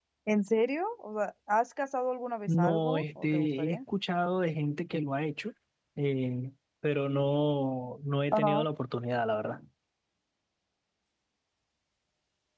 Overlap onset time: 2 s

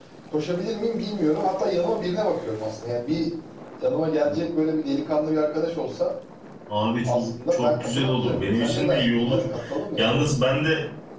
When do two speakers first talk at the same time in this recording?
7 s

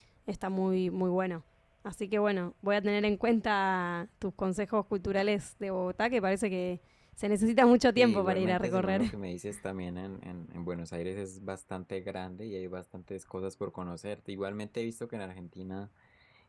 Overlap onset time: 8 s

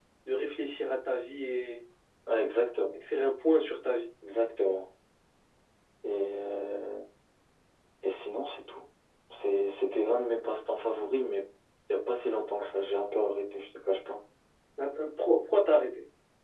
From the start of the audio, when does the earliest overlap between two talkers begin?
none

